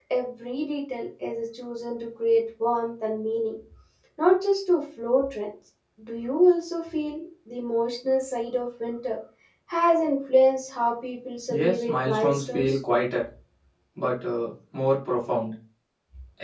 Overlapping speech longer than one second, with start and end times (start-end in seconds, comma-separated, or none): 11.5-12.7